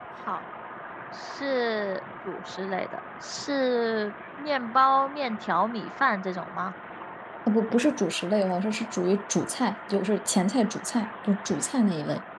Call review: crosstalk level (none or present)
none